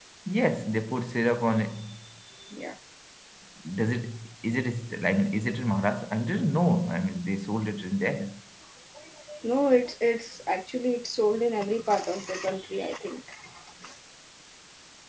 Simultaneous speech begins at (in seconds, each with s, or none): none